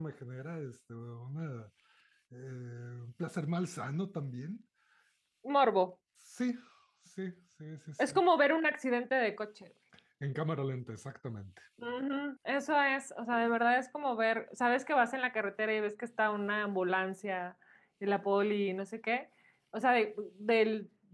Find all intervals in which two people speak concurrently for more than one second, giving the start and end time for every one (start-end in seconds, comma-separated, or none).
none